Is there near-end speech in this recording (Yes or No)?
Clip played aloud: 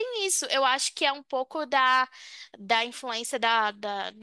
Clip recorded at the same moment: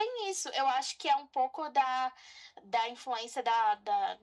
No